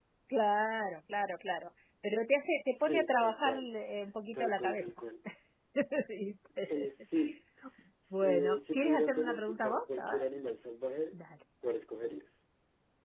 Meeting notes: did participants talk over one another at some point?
Yes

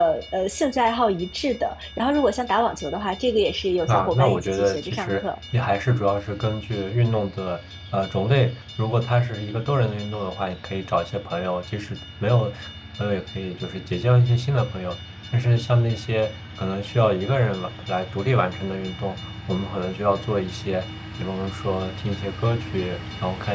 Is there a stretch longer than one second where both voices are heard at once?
Yes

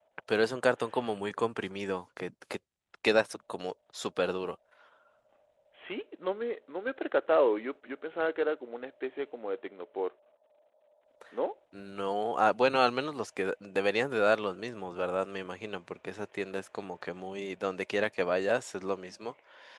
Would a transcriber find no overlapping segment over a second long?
Yes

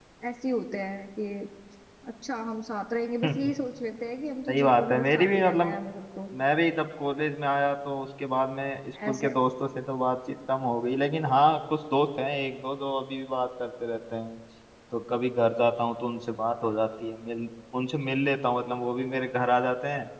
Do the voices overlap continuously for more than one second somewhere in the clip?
Yes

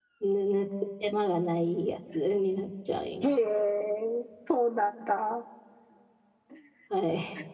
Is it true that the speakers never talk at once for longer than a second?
Yes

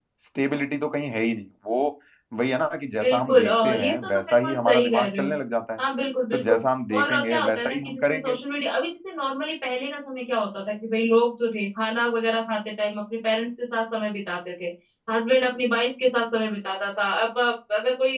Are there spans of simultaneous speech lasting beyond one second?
Yes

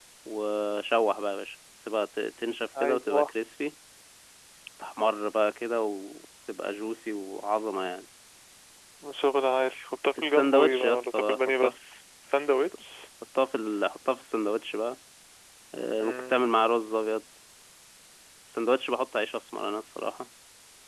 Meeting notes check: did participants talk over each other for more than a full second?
Yes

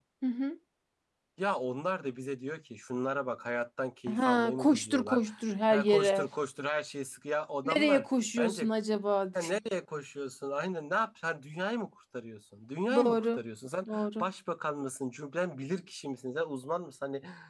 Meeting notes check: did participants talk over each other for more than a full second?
Yes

